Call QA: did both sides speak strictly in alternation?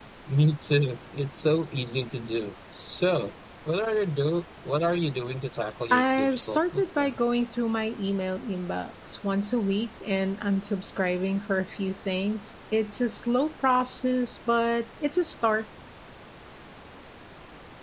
No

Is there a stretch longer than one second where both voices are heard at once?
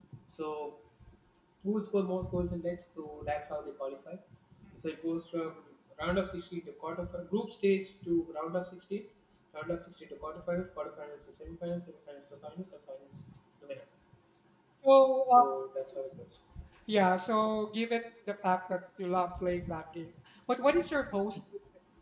No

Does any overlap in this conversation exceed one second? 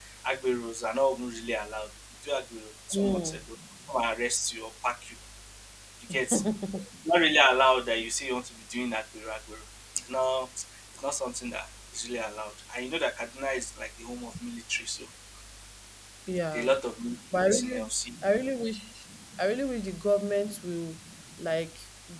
No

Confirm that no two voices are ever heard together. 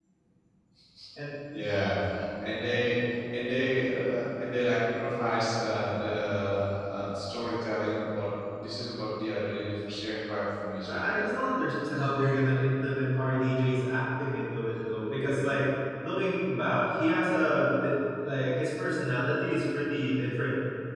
Yes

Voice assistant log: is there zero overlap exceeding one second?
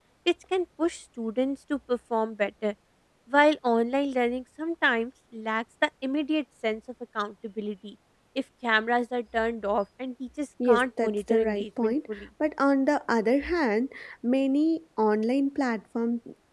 No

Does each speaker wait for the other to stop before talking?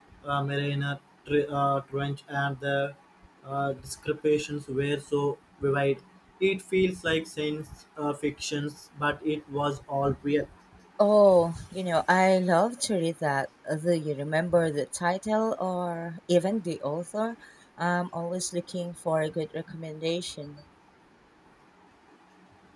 Yes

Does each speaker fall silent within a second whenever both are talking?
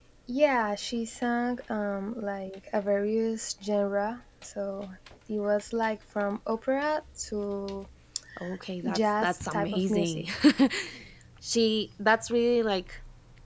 No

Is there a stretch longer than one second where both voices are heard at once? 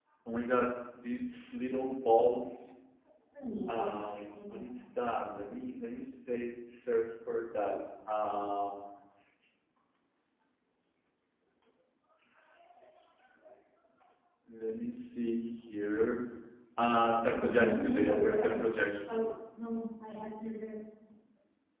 Yes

